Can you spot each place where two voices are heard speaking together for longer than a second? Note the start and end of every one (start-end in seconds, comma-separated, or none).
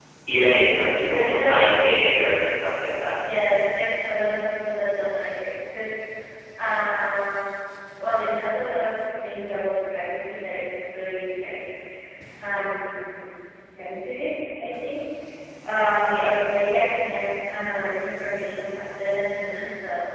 none